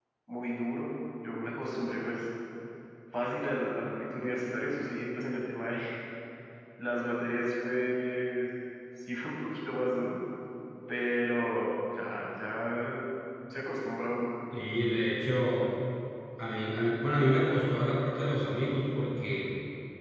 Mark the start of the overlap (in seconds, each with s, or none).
none